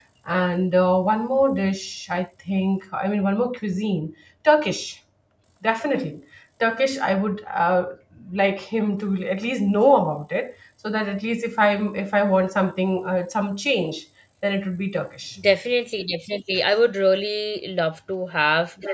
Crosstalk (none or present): none